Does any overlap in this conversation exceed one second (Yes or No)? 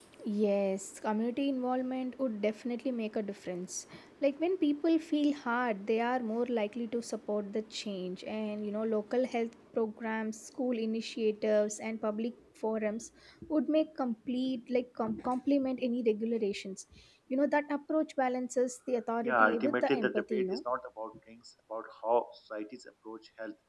Yes